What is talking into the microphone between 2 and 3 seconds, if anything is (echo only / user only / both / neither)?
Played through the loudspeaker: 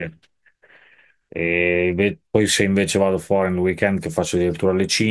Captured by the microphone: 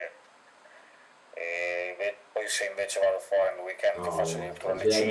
echo only